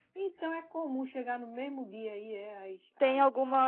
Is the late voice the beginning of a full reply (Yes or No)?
Yes